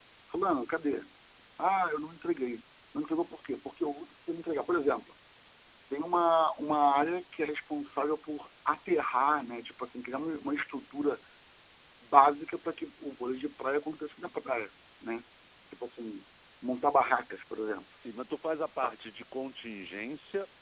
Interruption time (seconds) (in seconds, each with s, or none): none